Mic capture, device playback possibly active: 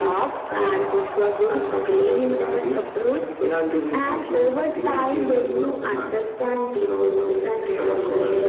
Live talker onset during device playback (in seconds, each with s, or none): none